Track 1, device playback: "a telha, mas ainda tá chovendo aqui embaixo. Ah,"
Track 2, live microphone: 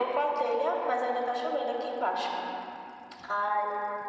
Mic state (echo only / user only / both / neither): echo only